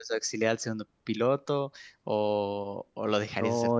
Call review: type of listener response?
taking over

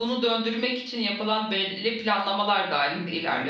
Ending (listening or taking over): taking over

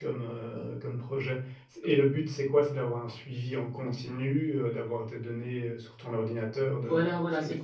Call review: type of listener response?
taking over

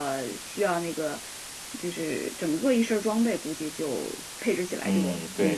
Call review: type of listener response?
taking over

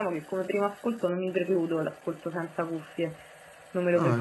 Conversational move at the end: taking over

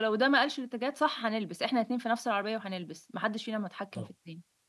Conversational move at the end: taking over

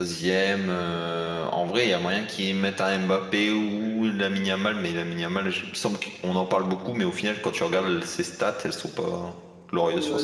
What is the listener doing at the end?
taking over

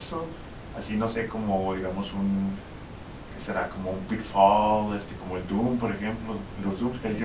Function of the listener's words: listening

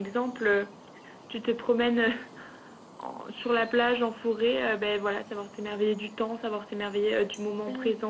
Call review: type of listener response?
taking over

